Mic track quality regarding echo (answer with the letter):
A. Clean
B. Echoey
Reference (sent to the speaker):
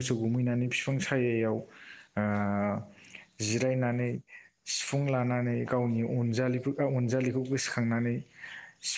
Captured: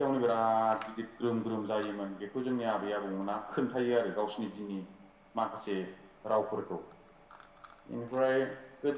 A